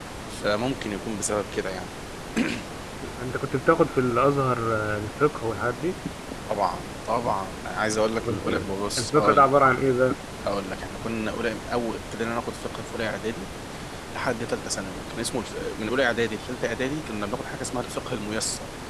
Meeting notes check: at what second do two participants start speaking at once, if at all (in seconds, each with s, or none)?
8.2 s